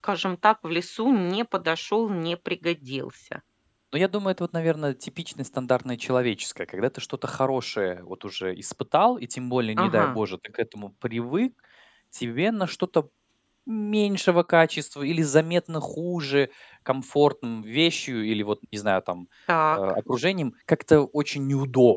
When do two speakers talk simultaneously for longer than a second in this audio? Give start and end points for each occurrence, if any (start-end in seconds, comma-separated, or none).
none